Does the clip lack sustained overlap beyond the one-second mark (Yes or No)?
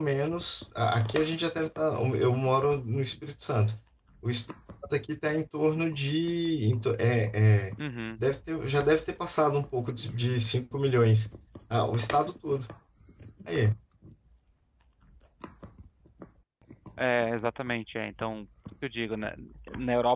Yes